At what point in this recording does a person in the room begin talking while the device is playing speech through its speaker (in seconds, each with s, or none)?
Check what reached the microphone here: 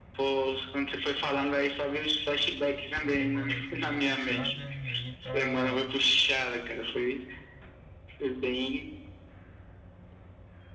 2.9 s